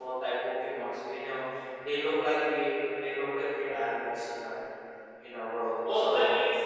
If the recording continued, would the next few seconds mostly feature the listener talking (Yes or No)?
Yes